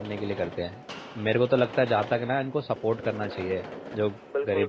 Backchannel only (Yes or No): No